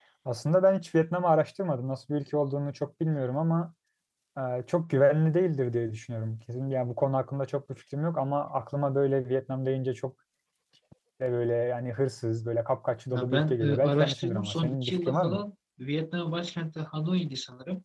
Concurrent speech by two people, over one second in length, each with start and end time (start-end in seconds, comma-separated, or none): 13.1-15.4